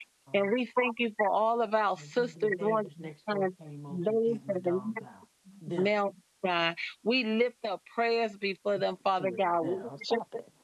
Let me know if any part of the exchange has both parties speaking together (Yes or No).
Yes